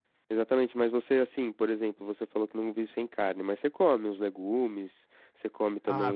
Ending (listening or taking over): taking over